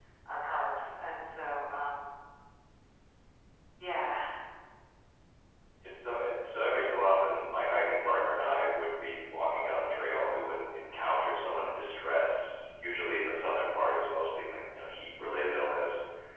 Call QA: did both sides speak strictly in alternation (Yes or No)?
Yes